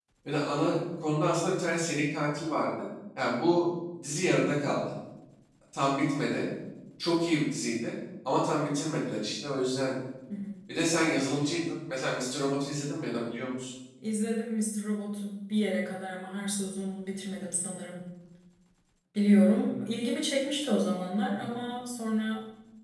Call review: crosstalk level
none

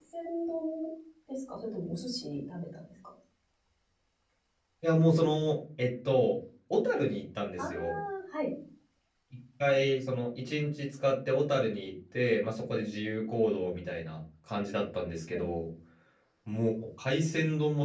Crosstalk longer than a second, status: none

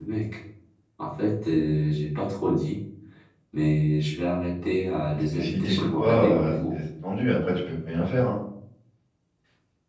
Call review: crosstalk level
present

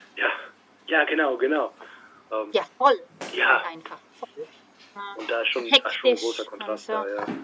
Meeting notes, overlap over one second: present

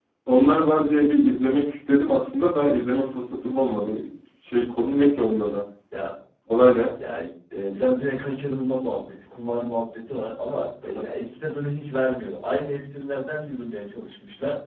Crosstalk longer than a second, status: none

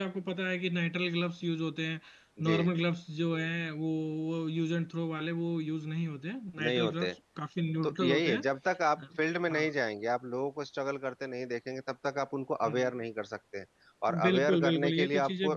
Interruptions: present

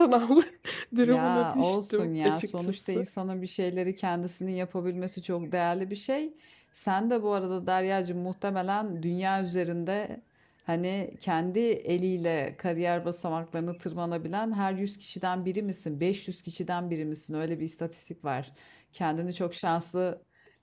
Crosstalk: present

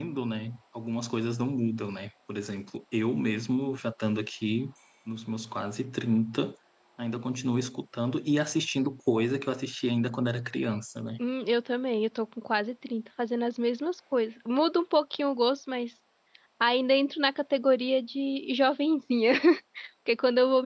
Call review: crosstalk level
none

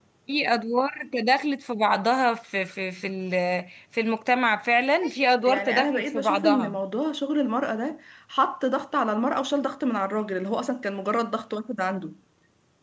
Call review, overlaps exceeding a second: present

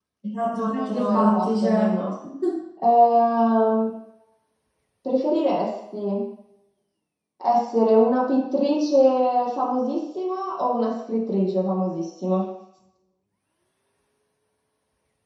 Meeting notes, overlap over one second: present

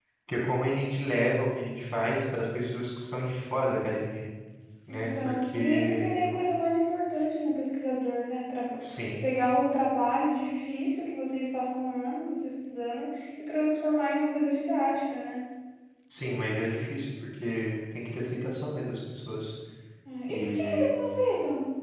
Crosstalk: present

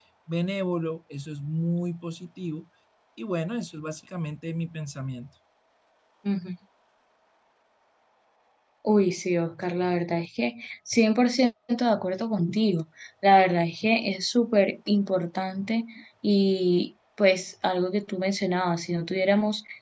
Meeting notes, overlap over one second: none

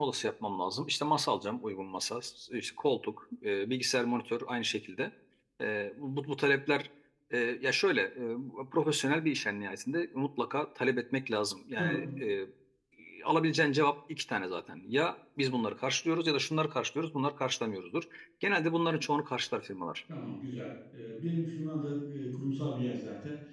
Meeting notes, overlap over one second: none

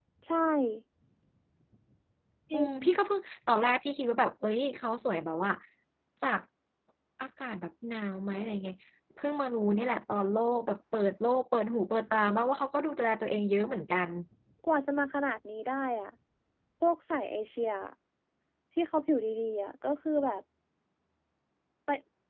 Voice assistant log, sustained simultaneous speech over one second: none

